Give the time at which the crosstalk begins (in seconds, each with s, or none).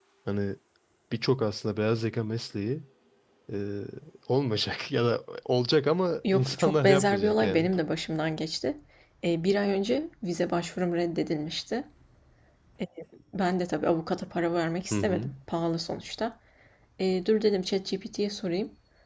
6.3 s